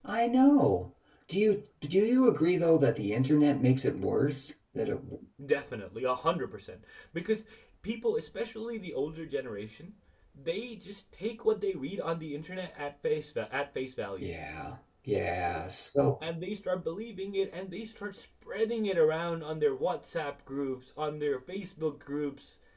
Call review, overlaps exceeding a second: none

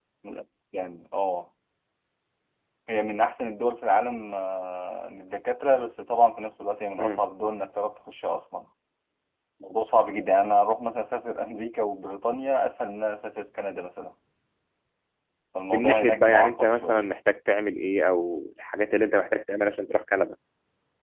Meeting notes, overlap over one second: present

